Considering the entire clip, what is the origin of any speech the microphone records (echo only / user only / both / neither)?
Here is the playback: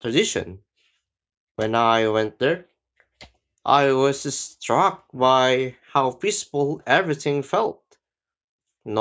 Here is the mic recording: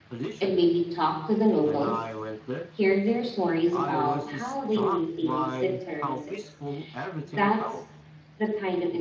both